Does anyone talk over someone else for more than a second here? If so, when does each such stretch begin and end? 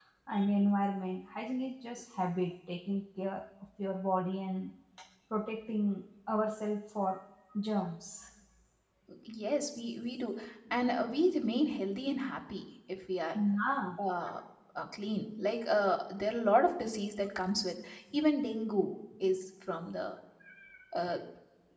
none

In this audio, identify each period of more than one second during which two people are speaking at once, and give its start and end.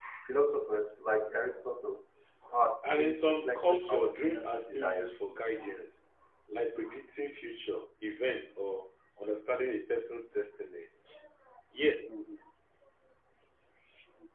2.8-5.2

